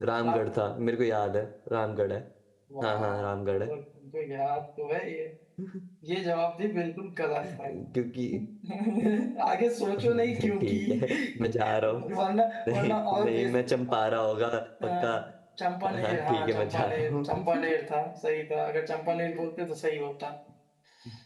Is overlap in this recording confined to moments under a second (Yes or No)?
No